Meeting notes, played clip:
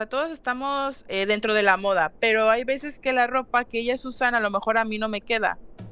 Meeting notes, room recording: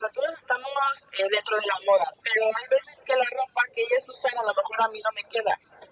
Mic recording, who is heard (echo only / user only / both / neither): echo only